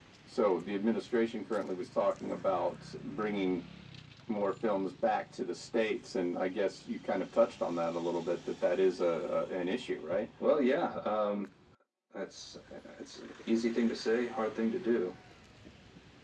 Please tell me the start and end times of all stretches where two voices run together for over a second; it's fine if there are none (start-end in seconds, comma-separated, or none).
none